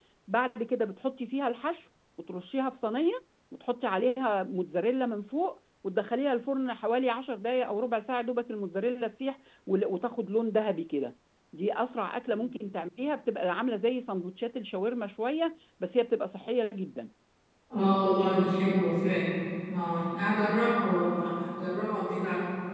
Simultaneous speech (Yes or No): No